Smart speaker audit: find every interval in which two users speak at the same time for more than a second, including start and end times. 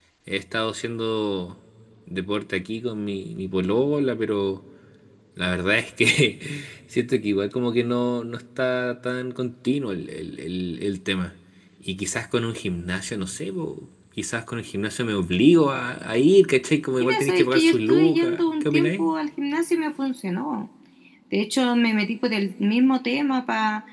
17.0-19.1

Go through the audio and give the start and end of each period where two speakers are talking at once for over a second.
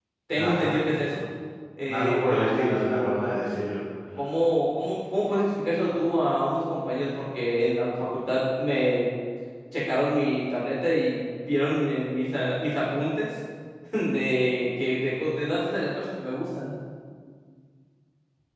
1.9-3.4

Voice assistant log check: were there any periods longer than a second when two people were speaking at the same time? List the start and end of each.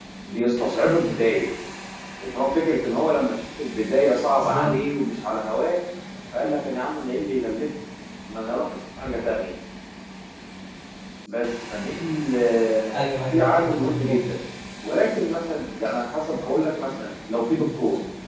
12.9-14.2

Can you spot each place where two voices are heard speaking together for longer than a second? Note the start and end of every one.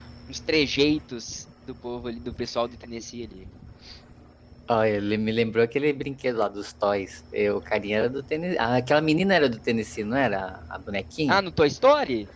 none

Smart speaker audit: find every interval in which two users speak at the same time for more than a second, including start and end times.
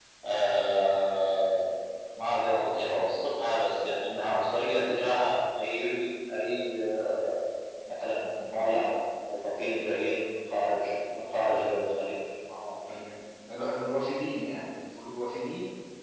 none

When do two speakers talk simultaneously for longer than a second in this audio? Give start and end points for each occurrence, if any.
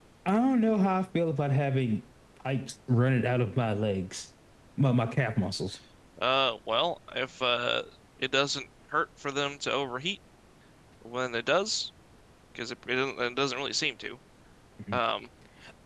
none

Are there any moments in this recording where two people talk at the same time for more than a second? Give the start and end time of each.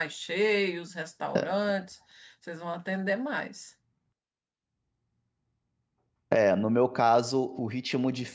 none

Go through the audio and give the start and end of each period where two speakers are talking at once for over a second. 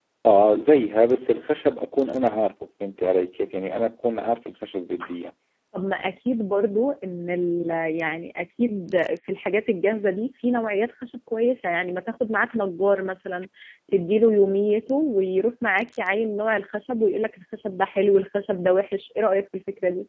none

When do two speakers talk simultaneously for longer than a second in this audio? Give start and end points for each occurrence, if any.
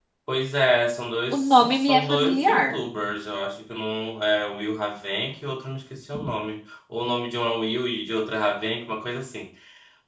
1.3-2.8

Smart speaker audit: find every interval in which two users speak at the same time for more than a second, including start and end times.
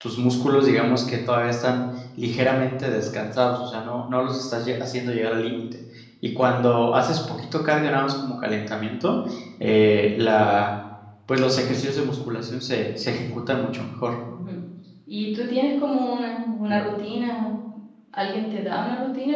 none

